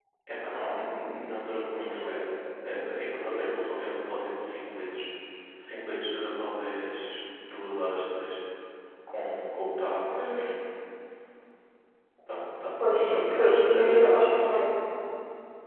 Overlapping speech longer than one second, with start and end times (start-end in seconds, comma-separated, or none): 12.8-14.6